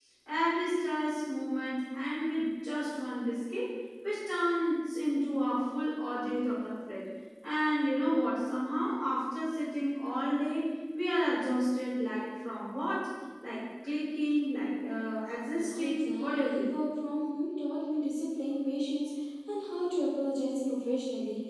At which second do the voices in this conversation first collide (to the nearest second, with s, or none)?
16 s